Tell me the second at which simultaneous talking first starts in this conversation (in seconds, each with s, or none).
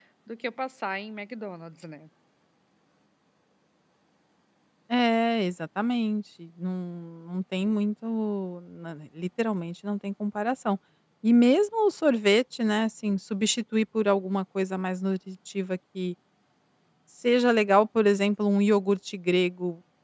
none